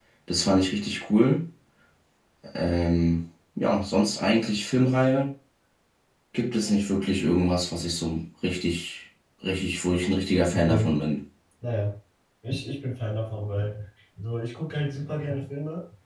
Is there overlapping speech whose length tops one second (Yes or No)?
No